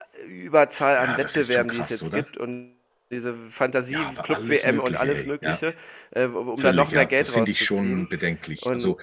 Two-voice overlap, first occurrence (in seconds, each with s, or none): 1.0 s